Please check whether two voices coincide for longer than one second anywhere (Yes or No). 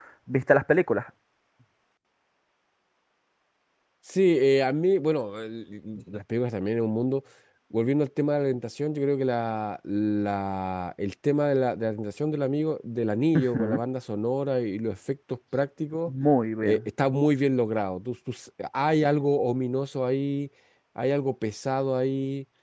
No